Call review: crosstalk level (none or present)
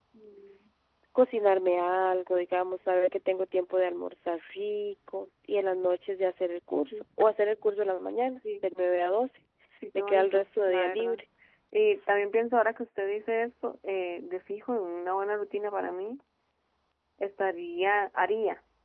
present